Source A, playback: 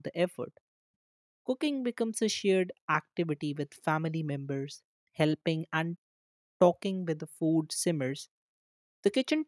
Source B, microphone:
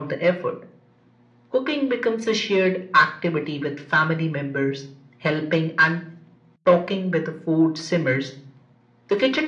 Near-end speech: none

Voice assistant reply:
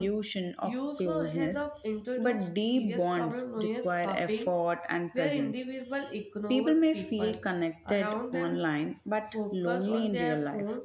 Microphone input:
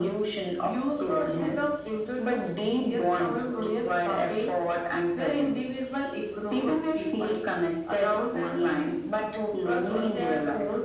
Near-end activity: none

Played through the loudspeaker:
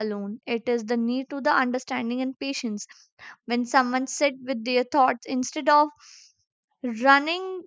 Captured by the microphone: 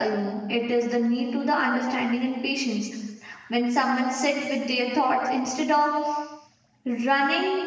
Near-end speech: none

